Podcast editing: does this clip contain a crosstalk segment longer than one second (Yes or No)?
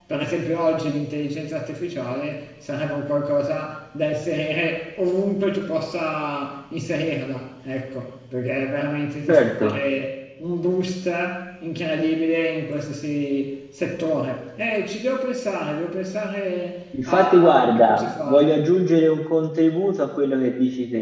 Yes